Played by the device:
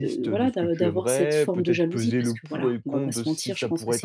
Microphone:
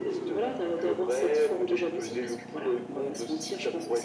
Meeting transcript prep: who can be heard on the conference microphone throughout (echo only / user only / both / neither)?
echo only